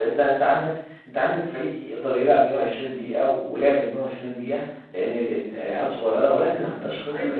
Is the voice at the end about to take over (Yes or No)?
No